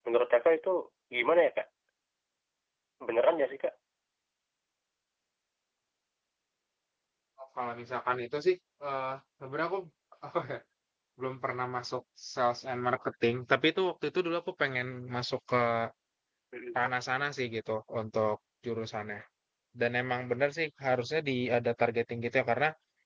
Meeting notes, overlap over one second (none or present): none